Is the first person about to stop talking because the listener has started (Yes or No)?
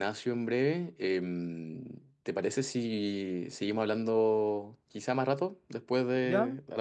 Yes